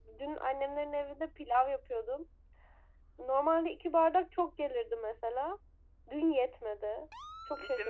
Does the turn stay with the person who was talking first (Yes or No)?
No